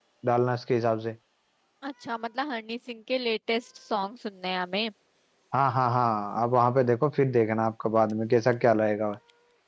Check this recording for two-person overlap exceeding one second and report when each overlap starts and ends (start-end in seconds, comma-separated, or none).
none